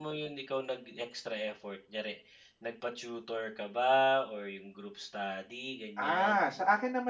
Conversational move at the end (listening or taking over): taking over